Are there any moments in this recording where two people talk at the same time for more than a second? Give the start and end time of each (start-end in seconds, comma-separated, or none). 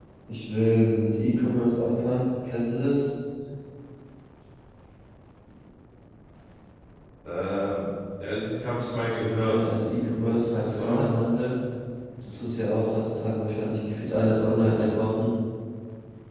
9.3-11.0